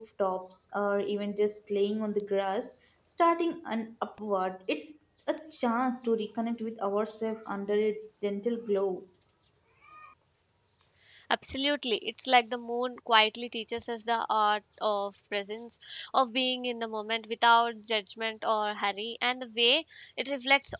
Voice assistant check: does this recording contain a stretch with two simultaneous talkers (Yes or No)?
No